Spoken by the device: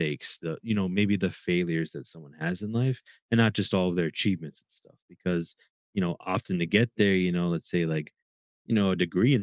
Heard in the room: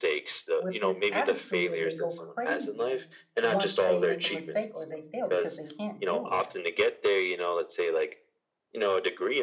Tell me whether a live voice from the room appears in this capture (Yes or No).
Yes